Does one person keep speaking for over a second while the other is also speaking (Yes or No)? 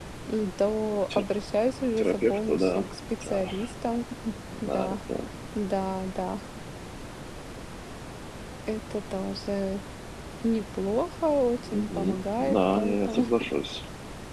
Yes